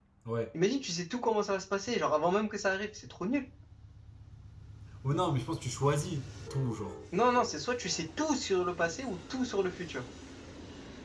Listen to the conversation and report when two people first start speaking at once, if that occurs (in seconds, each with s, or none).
none